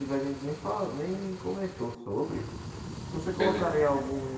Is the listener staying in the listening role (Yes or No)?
Yes